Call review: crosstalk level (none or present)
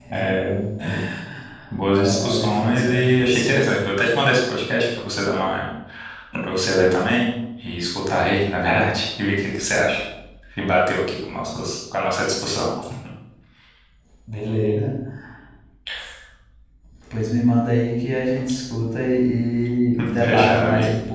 present